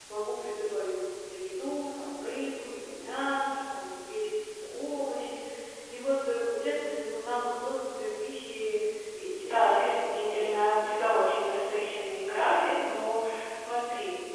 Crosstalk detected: Yes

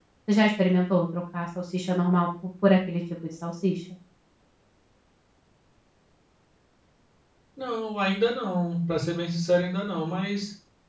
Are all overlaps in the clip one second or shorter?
Yes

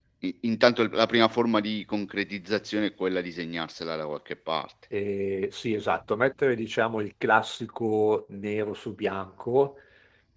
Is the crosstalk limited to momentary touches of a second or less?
Yes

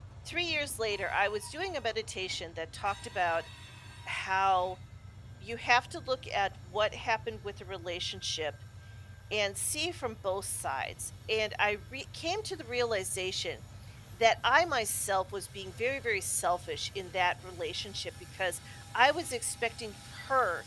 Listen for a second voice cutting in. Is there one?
No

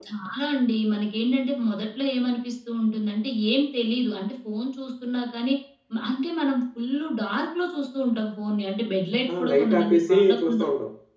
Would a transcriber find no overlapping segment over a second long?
No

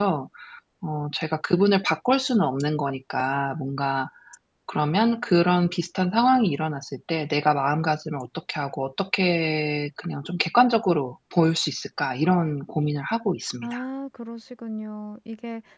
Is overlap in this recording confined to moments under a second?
Yes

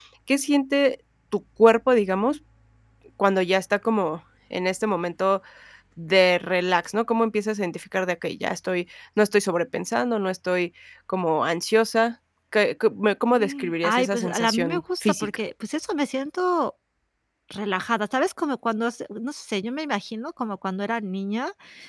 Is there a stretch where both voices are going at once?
Yes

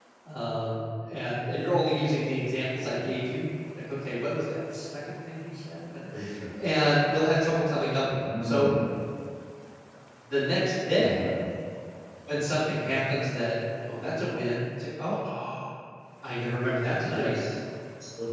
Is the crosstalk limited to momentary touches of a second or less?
Yes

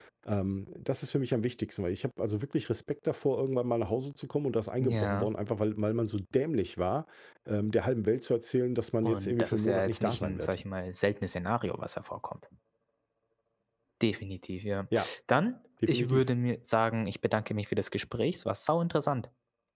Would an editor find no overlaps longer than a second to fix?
No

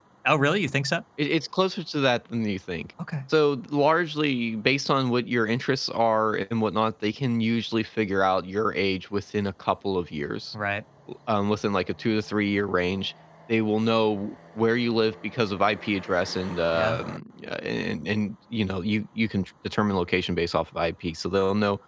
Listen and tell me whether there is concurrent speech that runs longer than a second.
No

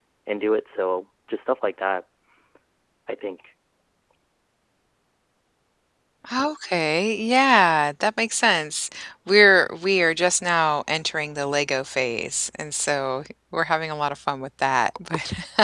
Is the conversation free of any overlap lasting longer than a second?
Yes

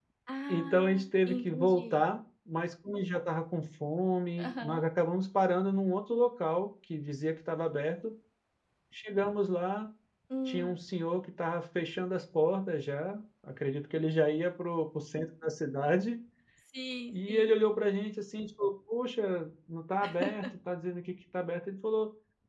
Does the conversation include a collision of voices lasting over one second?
Yes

